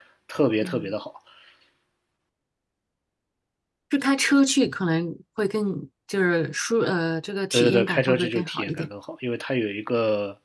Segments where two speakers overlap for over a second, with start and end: 7.5-8.9

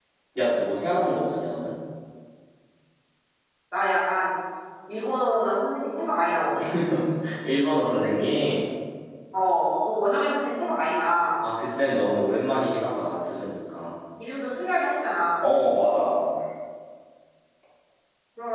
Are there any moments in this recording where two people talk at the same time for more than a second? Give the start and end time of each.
none

